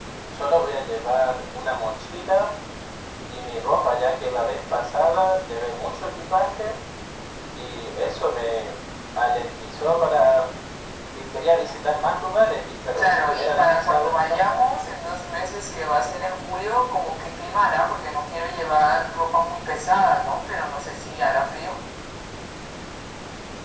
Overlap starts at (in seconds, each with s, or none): 13.0 s